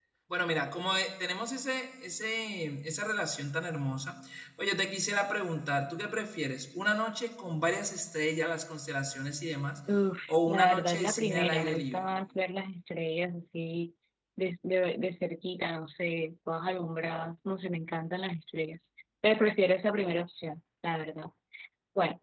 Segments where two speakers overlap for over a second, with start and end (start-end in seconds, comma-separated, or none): 10.4-12.0